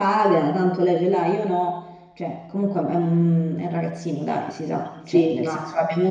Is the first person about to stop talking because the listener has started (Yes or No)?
No